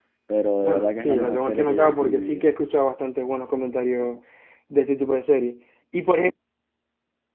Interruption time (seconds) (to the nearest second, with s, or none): 1 s